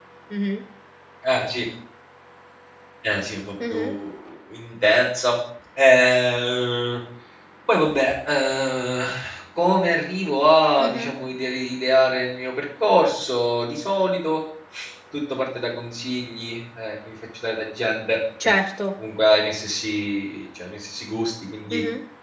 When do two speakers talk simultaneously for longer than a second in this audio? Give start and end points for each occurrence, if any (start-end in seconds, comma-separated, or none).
none